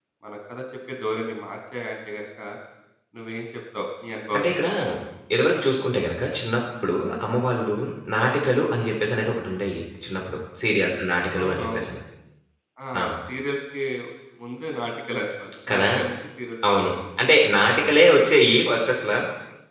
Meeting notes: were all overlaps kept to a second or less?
Yes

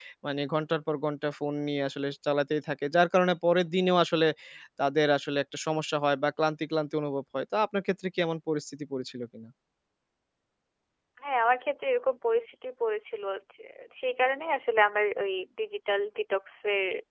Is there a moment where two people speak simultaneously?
No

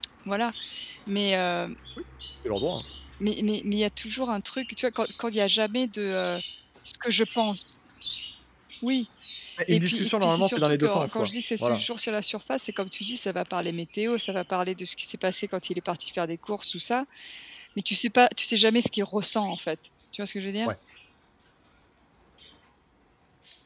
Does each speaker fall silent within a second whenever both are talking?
No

